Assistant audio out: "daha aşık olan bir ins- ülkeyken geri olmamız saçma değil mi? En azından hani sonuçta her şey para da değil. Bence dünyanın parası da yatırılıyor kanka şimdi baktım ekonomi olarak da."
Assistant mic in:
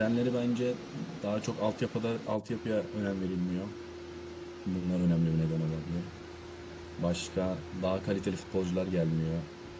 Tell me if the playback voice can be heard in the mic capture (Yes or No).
No